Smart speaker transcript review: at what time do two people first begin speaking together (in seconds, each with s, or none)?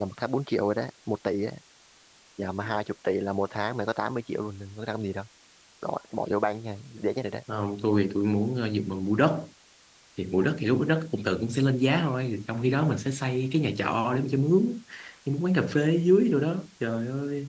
none